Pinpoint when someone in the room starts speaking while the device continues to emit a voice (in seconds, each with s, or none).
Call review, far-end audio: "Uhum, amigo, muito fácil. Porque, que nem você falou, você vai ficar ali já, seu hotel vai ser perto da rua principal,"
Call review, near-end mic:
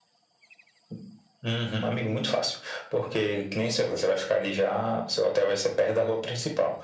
none